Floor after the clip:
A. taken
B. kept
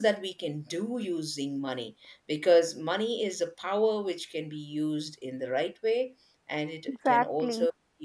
B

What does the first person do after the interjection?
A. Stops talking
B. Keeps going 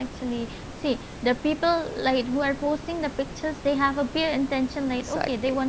B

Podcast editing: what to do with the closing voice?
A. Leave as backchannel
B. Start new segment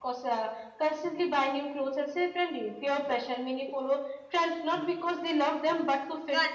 B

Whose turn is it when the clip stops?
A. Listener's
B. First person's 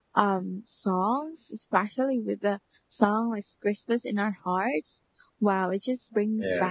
B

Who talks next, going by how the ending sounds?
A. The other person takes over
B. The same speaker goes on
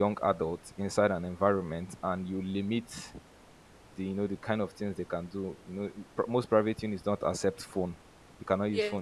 B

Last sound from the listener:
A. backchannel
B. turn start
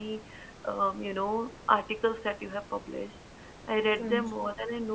A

